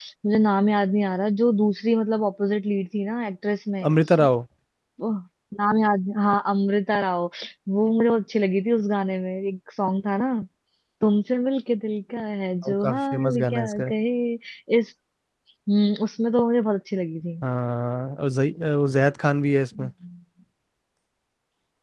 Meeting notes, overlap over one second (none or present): present